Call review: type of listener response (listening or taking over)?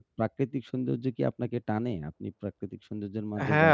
taking over